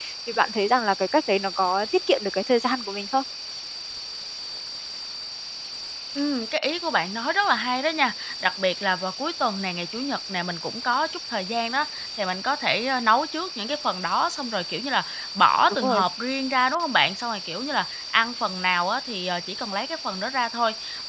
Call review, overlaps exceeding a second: none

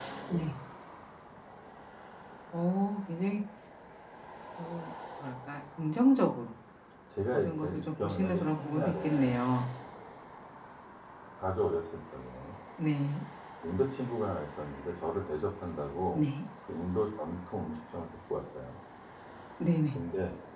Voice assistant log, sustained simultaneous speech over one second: present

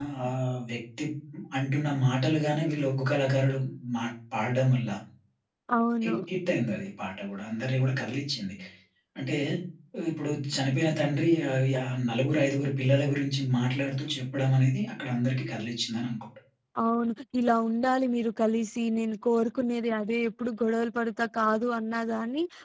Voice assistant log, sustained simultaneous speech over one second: none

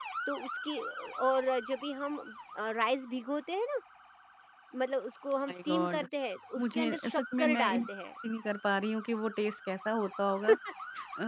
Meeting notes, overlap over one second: present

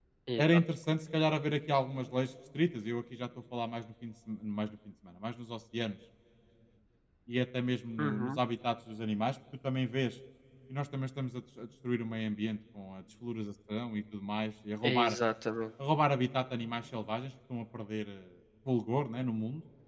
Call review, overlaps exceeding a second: none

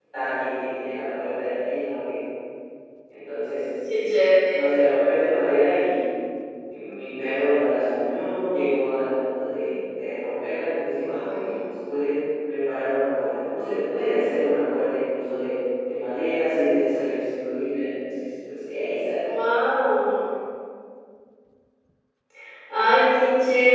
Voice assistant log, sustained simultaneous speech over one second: none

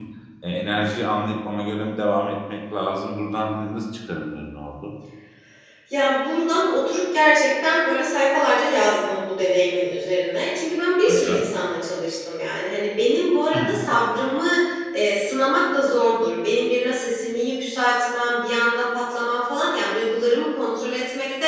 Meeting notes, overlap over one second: none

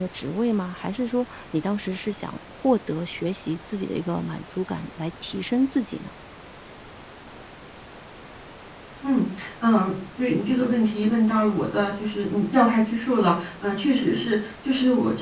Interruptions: none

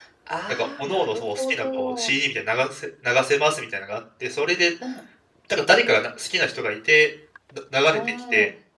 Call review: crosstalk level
present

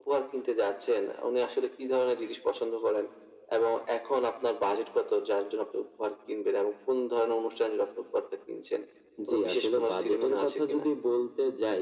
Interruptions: present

